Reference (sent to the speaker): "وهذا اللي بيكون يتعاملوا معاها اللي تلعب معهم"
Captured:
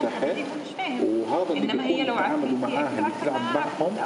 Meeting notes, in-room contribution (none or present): present